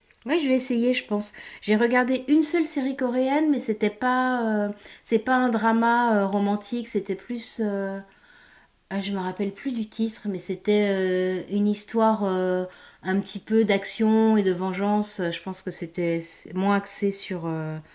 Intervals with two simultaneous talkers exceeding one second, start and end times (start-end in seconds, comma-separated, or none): none